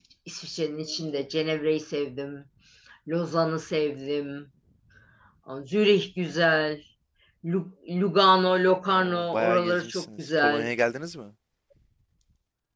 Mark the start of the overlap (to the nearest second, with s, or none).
9 s